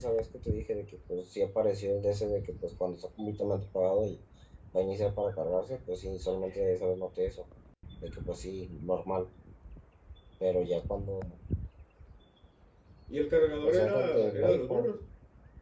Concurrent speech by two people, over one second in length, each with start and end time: 13.6-15.0

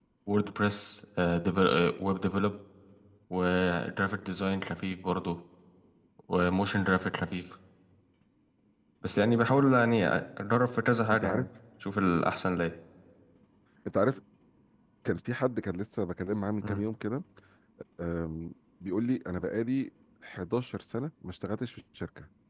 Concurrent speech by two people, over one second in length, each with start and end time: none

